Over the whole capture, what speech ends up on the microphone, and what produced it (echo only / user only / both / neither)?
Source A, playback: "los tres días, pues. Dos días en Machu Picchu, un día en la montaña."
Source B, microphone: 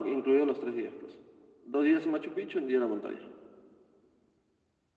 echo only